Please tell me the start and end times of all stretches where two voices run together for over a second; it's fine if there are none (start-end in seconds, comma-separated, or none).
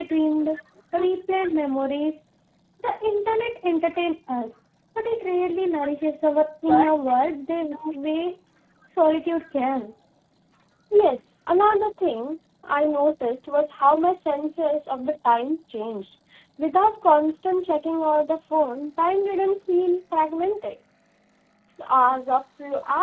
none